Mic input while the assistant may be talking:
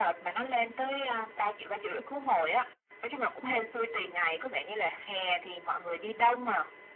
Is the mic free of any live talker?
Yes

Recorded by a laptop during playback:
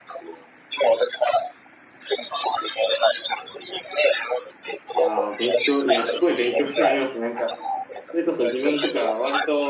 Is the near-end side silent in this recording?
No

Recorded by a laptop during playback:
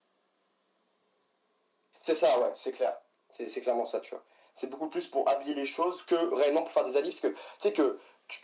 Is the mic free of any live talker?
Yes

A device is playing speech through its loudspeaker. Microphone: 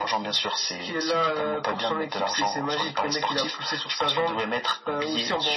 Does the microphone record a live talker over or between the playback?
No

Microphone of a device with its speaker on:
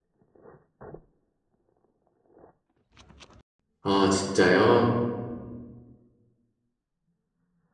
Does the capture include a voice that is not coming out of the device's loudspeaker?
Yes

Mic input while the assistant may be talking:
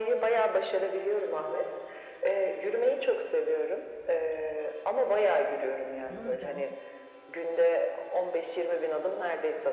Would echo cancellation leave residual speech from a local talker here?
Yes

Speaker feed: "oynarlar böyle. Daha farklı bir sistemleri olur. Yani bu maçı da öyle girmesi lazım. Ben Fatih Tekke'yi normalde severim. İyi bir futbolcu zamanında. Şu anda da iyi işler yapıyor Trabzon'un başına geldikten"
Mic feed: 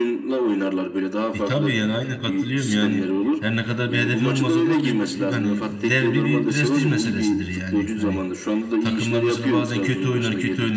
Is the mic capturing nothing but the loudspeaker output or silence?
No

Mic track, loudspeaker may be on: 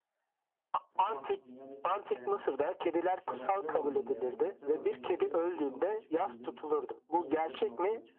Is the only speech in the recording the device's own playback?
No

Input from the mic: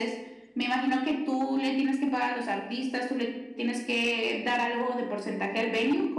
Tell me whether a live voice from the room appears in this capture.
No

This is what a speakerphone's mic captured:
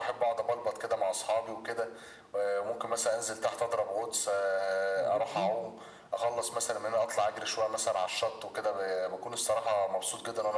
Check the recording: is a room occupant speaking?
Yes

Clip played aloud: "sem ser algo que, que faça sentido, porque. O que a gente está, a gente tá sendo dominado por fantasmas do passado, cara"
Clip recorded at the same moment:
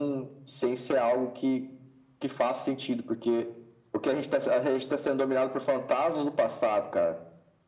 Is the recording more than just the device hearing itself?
No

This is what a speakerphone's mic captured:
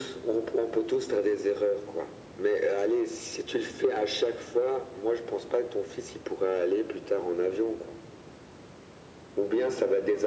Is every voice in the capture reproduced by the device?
Yes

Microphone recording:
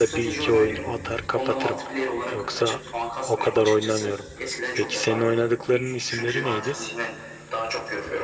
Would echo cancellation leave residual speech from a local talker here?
Yes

